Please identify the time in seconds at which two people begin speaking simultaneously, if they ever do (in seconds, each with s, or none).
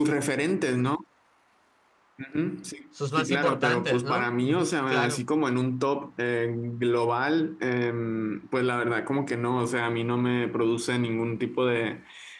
3.2 s